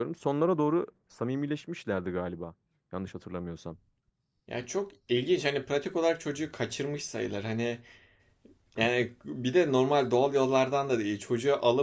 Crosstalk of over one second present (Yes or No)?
No